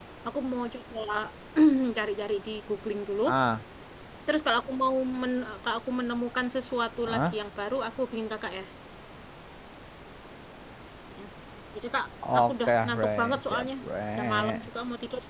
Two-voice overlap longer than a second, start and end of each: 12.3-13.7

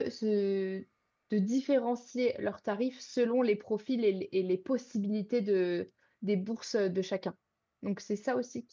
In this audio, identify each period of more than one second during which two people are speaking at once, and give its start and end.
none

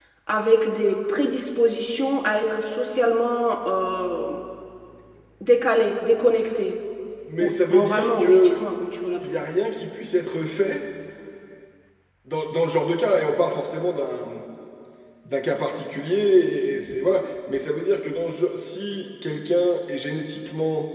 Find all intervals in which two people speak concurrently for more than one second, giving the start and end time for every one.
7.4-8.6

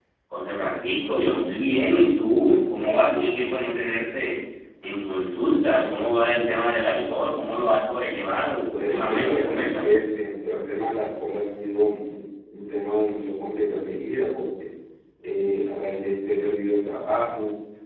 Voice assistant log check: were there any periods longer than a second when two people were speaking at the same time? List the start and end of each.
8.7-10.0

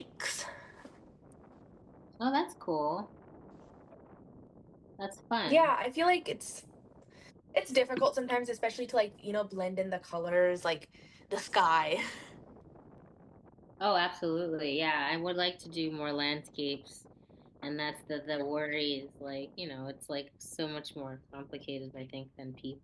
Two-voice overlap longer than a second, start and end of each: none

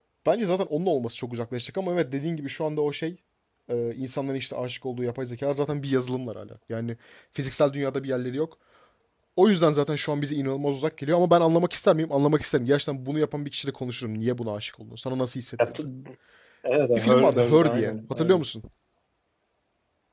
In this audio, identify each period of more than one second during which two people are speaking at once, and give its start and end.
16.9-18.4

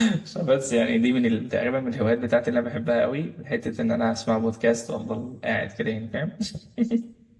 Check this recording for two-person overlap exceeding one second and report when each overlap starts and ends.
none

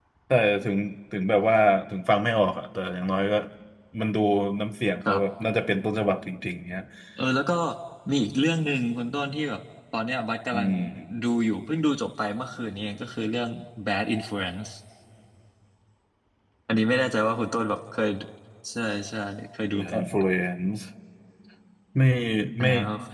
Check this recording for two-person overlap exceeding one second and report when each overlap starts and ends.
none

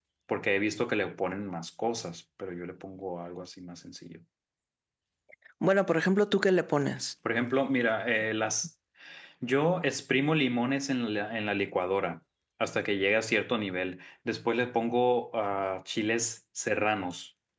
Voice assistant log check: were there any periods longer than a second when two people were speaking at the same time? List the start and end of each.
none

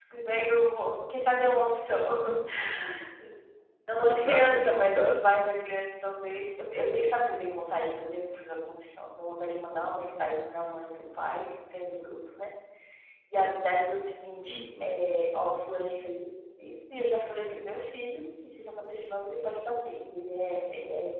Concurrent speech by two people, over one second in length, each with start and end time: 4.1-5.4

